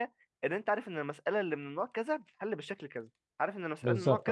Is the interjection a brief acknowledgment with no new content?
Yes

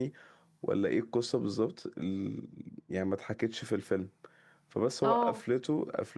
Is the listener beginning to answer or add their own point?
No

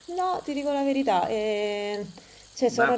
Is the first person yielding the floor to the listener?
Yes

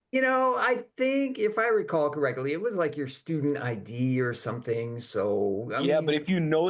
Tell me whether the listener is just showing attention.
No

